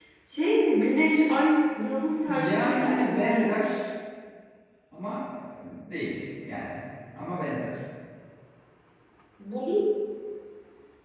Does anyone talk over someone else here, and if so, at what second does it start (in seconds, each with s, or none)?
2.3 s